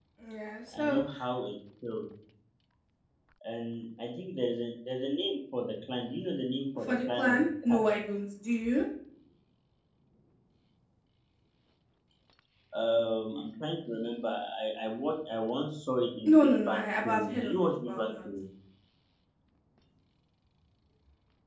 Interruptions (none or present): present